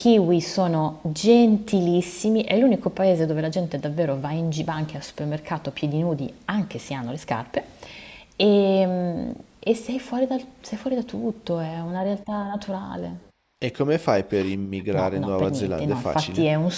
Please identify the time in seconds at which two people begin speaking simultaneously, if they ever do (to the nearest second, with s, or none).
15 s